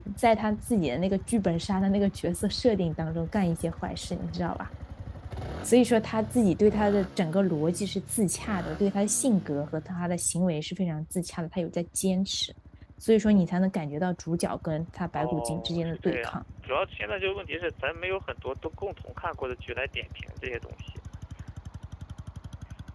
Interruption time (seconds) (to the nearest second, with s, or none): 15 s